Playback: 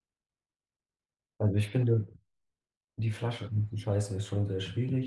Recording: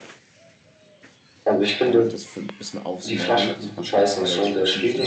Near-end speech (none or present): present